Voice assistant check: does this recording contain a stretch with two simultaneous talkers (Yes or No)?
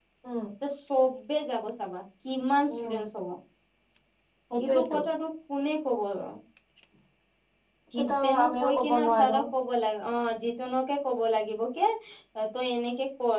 Yes